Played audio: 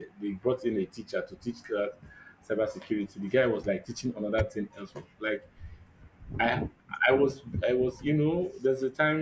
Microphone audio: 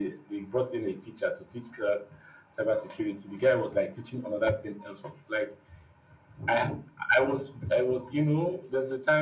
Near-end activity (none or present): none